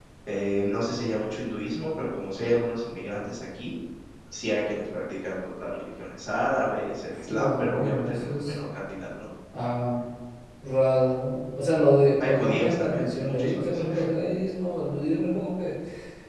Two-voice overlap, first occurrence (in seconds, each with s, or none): 7.3 s